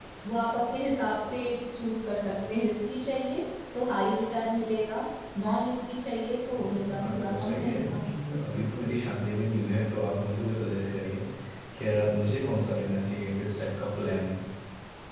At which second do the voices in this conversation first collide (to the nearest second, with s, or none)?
7 s